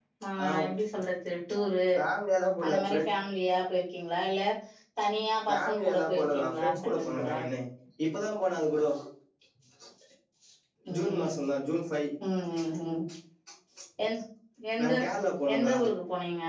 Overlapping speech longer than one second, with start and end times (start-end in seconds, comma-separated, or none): 5.5-7.3